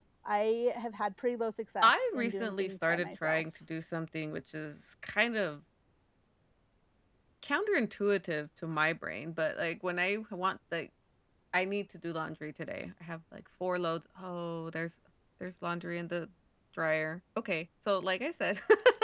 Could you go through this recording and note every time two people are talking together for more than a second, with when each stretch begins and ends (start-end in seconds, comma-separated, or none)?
1.8-3.4